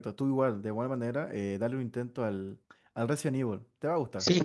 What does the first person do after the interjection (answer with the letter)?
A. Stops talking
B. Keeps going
A